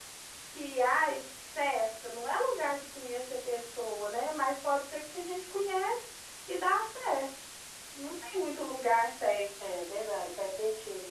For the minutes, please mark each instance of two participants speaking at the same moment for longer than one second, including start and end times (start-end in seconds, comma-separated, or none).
none